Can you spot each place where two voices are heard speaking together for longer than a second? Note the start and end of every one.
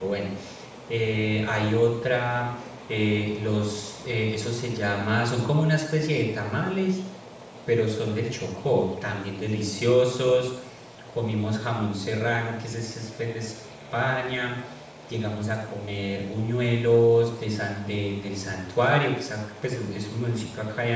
none

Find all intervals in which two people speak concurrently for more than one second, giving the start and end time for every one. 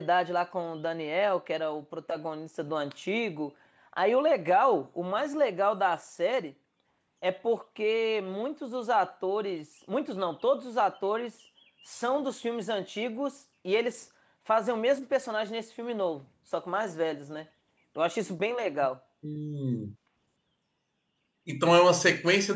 none

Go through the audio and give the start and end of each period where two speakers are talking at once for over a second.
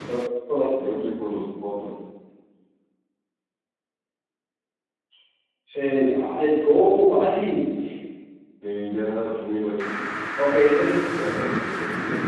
none

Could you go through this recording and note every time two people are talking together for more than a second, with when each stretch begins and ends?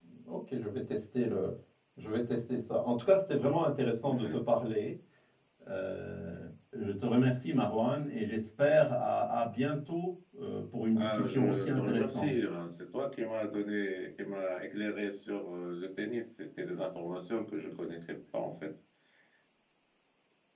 10.9-12.3

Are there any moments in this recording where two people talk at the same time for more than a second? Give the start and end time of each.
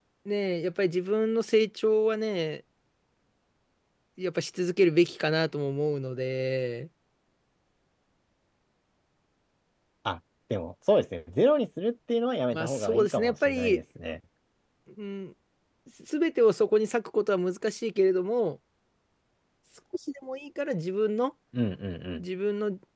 12.5-13.8

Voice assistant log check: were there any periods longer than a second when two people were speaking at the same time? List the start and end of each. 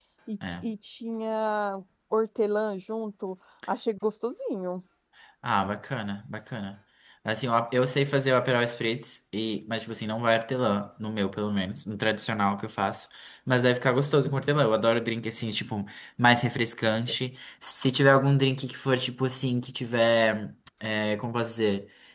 none

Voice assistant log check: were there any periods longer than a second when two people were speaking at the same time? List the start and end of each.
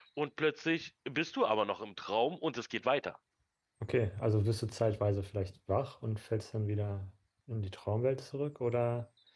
none

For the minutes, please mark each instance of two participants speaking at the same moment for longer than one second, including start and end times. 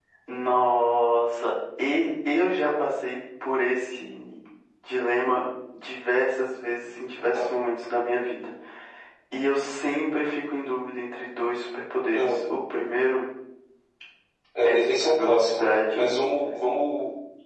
14.7-16.1

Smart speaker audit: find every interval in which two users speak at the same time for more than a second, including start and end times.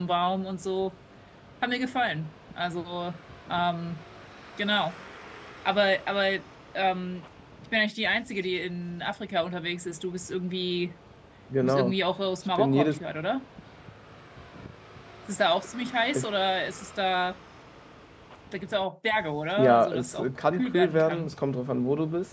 19.6-21.3

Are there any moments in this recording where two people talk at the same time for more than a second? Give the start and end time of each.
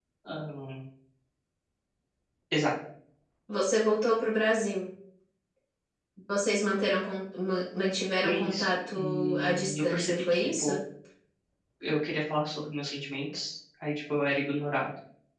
8.2-10.7

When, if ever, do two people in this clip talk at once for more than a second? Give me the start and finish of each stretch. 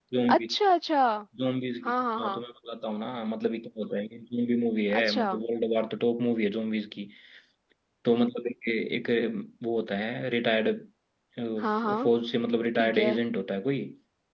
none

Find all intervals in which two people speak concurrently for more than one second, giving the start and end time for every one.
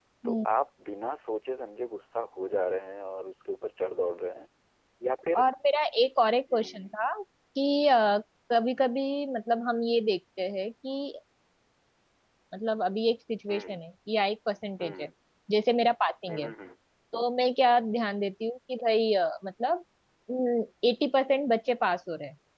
none

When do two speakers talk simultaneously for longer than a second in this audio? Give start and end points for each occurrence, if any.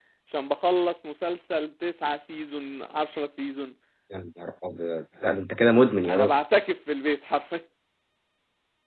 none

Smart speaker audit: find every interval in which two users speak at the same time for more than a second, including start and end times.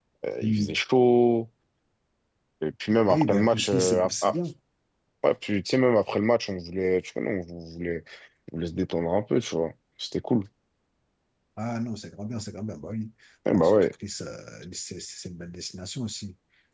3.1-4.3

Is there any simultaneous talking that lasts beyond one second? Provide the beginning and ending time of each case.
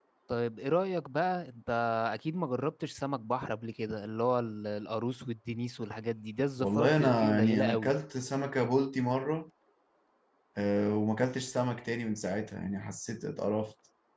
6.6-7.9

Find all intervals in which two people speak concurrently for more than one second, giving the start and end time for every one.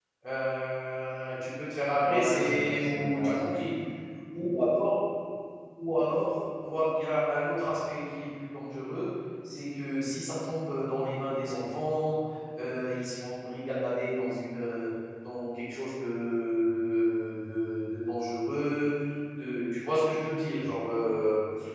2.0-3.5

